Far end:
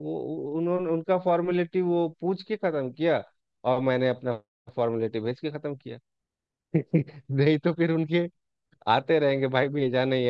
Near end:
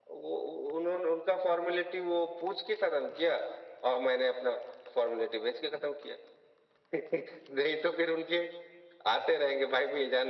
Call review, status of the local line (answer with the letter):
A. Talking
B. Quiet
B